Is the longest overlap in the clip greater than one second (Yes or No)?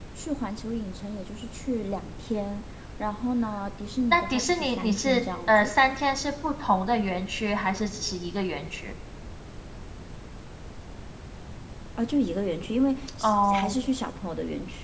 Yes